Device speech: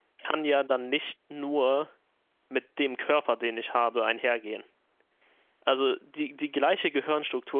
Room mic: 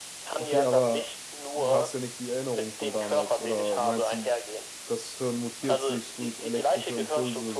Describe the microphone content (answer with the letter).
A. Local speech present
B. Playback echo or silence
A